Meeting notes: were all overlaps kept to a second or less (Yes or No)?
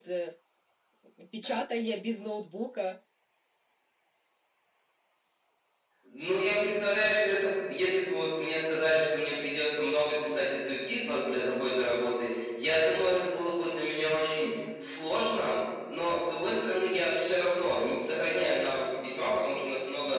Yes